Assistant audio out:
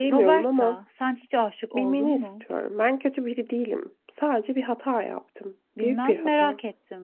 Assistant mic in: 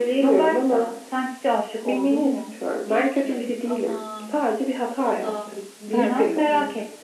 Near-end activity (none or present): present